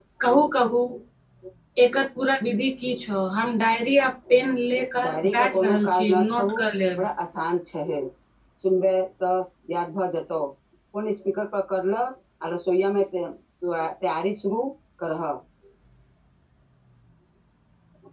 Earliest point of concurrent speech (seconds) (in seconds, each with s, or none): 5.0 s